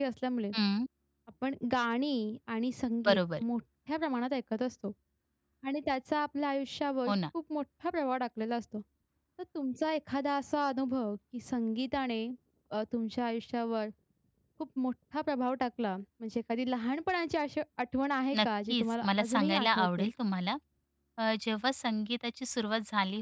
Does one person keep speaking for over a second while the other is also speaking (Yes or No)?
Yes